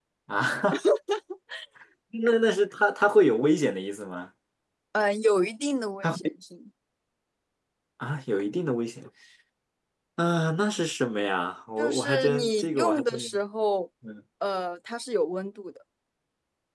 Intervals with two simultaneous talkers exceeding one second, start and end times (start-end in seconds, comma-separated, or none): 11.8-13.3